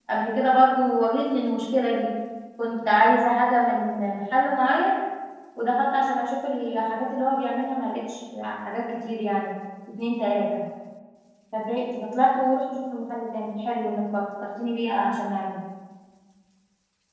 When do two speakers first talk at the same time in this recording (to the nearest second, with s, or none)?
none